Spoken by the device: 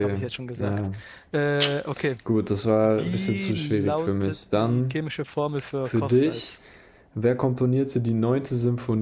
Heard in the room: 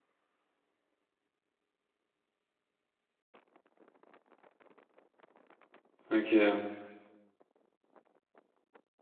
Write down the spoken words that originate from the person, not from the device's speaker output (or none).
Okay,